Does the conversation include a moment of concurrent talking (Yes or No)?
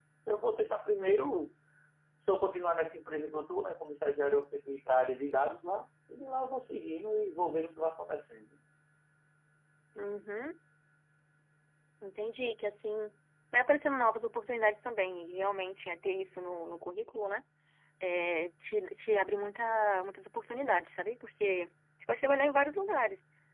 No